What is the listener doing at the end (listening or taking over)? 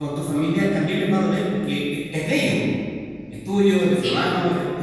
listening